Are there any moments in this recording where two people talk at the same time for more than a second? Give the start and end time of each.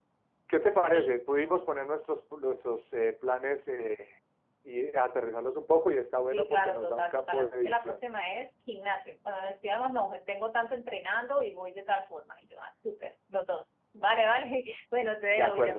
6.3-8.0

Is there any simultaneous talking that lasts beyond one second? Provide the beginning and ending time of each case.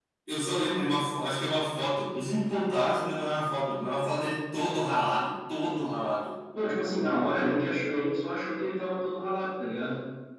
none

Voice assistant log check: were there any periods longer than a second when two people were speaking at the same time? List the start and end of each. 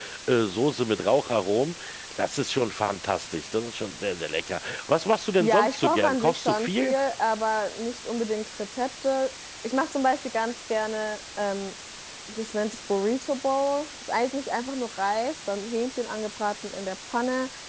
5.4-6.9

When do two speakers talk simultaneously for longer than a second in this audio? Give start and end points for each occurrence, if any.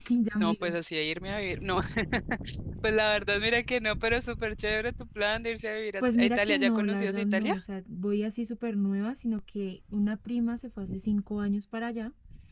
6.0-7.5

